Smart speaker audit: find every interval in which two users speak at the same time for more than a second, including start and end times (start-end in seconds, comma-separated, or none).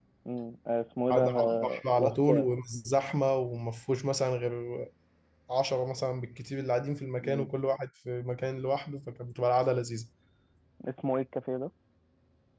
1.1-2.5